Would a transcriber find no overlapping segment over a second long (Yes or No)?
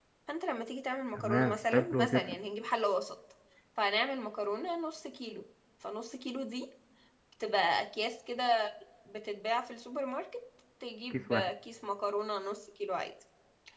No